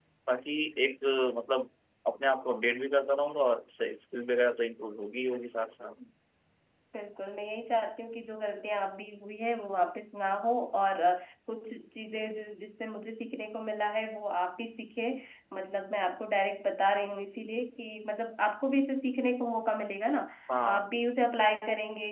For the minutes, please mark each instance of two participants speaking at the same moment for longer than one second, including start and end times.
none

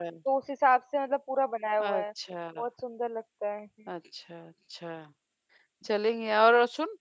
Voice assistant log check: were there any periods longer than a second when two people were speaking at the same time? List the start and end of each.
none

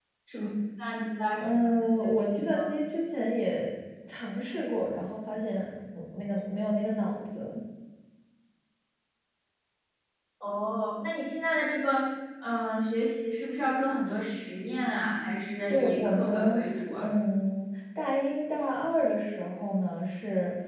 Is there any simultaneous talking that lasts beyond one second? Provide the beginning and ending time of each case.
1.4-2.7, 15.7-17.0

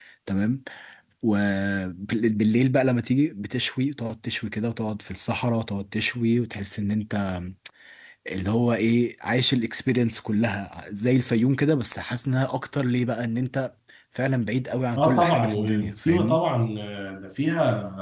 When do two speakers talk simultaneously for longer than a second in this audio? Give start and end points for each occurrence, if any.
14.9-16.4

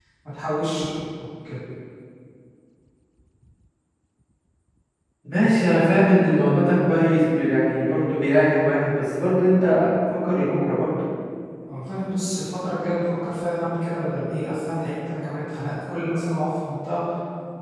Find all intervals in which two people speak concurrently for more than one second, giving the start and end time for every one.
none

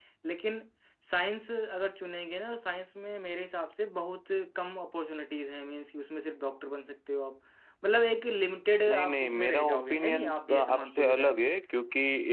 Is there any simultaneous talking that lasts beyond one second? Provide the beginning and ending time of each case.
8.9-11.4

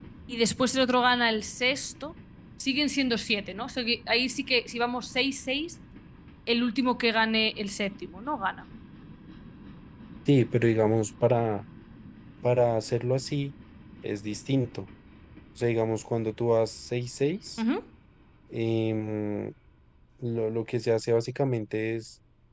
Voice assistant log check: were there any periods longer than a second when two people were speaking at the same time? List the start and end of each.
none

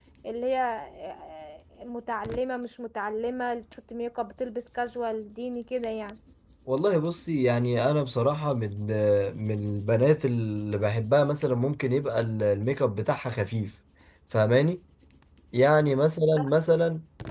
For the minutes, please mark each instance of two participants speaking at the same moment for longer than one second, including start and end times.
none

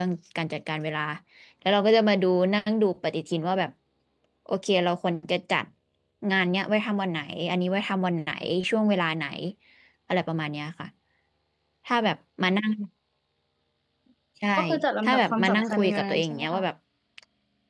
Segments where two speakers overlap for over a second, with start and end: 15.0-16.6

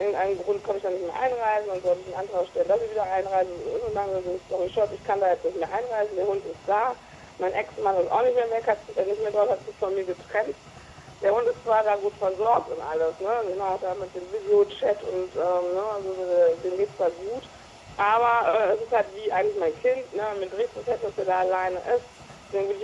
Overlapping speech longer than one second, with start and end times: none

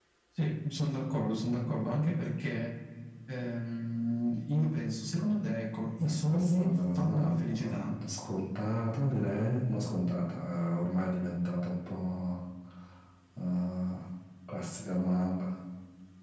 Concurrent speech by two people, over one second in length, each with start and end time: 6.0-7.9

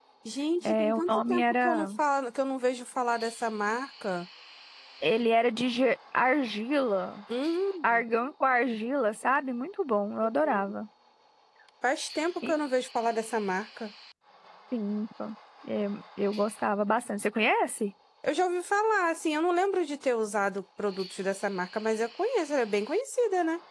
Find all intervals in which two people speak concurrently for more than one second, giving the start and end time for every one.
0.7-1.9

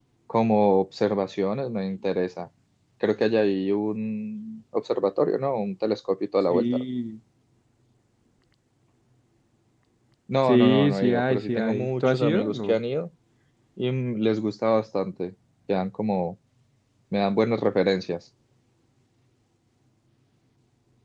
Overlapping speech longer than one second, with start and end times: 10.5-12.8

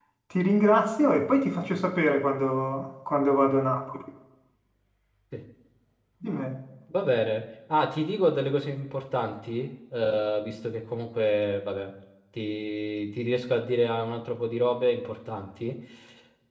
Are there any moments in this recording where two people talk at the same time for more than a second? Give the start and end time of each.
none

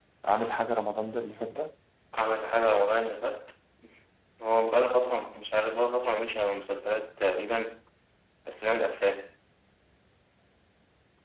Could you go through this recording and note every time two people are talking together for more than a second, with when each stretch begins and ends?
none

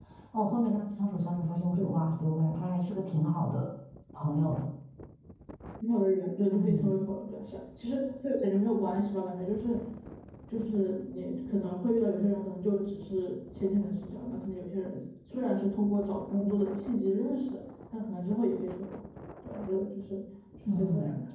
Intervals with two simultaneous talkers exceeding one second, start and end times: none

